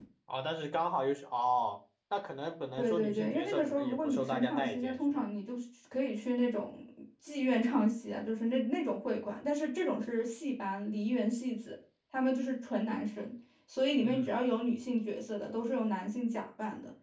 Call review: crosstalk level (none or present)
present